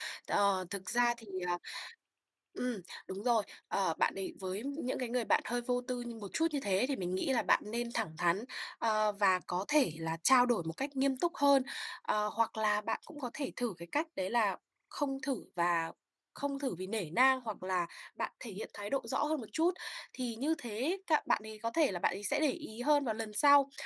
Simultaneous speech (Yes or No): No